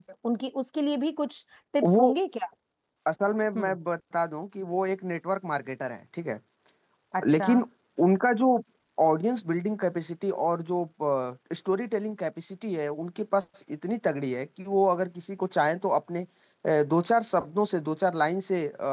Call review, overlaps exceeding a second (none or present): none